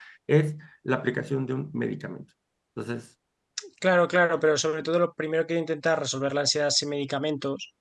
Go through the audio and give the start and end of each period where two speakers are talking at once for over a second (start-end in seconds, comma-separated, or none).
none